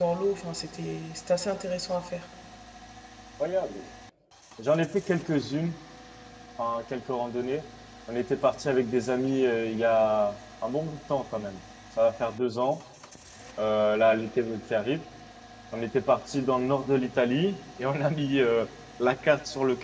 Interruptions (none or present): none